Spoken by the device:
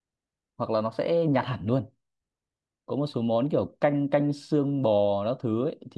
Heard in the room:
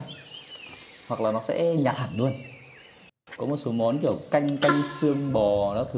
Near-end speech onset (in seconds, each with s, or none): none